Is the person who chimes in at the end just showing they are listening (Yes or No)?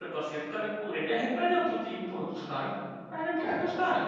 Yes